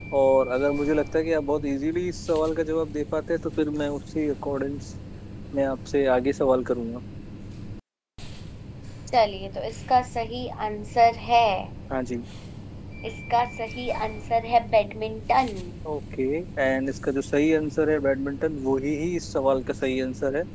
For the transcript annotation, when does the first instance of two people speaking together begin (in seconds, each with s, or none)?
none